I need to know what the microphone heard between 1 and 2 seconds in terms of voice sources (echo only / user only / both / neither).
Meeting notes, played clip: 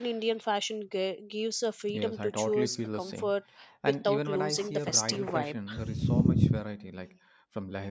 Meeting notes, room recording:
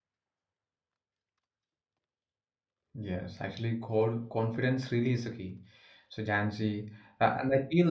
neither